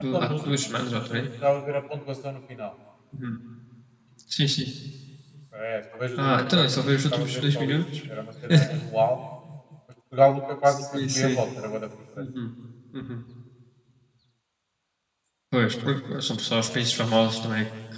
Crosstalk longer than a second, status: present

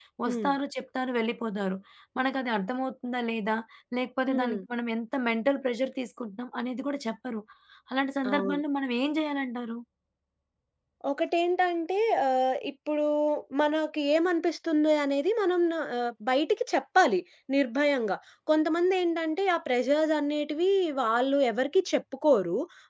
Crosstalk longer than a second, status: none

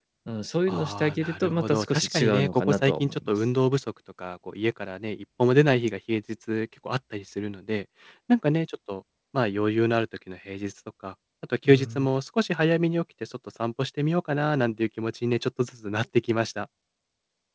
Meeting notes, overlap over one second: present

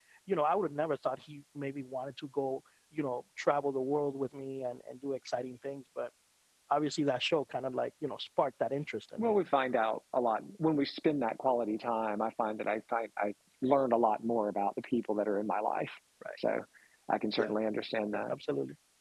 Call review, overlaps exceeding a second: none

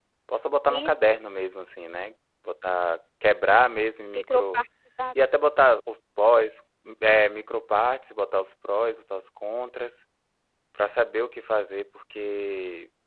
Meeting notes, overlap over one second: none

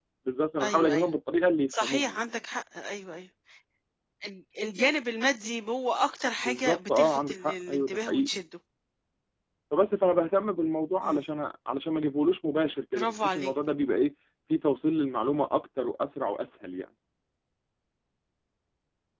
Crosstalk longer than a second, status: present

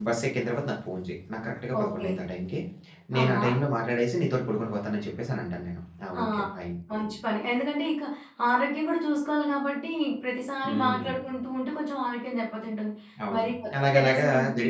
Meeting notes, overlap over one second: present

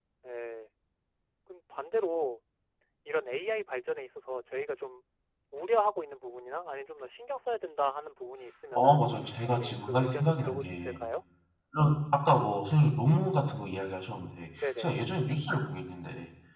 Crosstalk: present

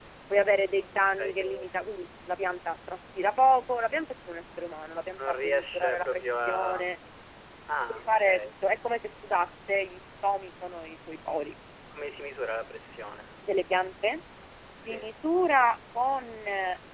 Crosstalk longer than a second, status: present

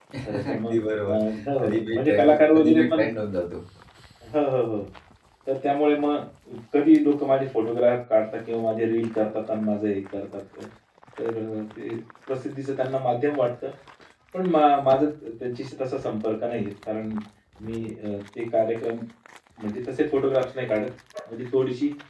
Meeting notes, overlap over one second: present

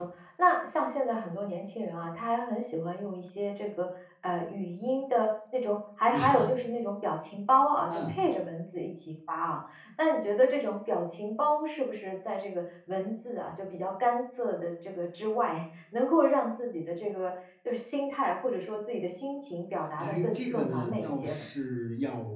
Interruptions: present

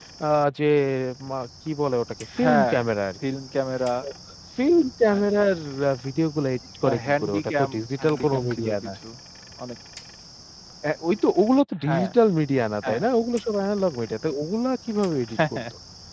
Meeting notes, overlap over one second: present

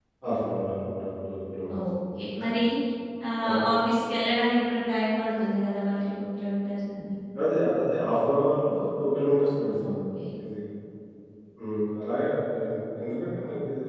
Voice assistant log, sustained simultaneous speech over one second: none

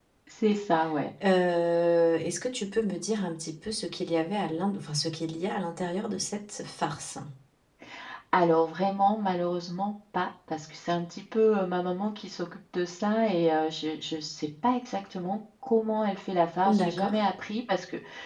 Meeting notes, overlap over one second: none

